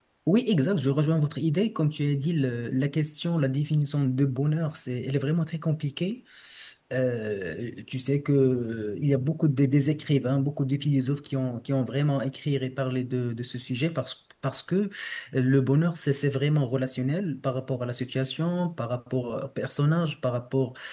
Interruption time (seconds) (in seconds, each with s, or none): none